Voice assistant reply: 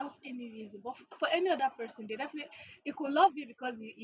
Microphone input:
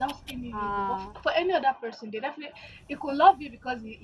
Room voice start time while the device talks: 0 s

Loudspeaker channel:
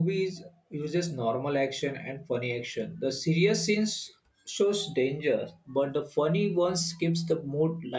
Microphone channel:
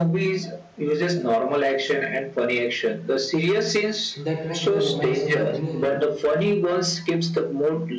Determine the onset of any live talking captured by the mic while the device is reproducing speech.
4 s

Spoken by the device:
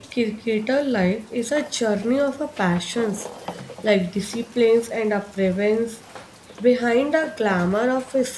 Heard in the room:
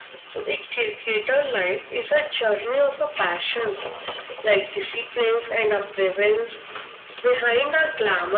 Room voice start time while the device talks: none

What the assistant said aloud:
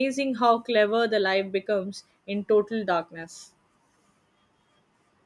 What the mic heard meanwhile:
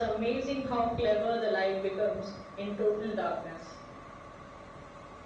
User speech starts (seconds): none

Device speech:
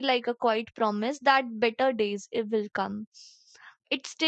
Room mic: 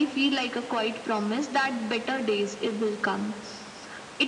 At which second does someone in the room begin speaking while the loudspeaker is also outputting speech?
none

